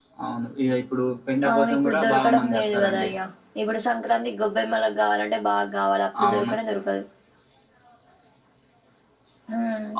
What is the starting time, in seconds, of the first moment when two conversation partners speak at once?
1.5 s

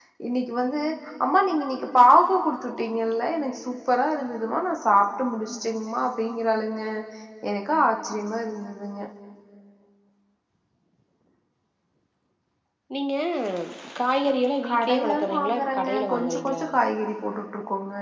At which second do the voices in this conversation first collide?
14.7 s

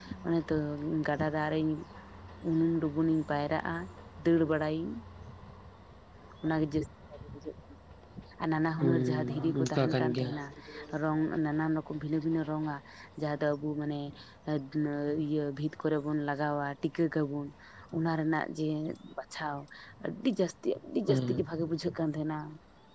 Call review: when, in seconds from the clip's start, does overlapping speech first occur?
8.8 s

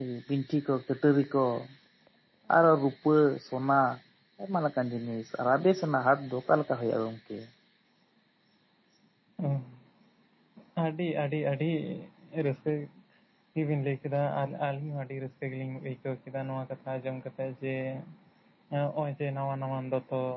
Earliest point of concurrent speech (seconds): none

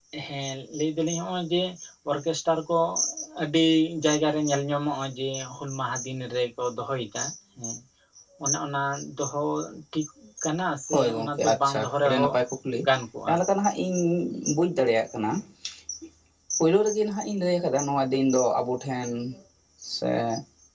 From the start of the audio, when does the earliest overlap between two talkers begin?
10.9 s

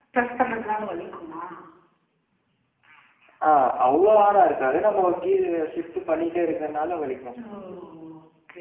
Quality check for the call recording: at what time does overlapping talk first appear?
none

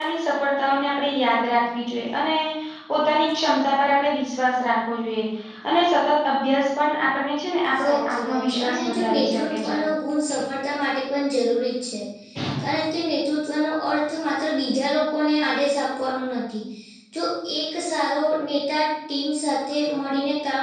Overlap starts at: 7.8 s

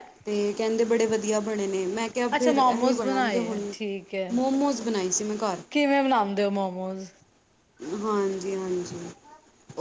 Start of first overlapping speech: 2.3 s

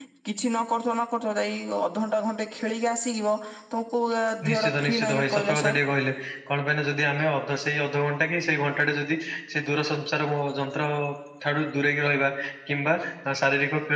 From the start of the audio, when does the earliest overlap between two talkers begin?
4.5 s

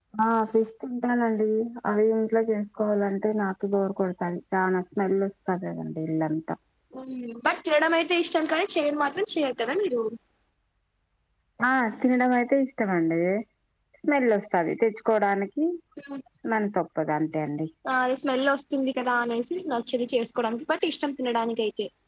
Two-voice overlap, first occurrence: none

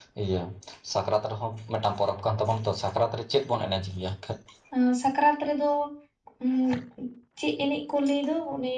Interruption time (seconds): none

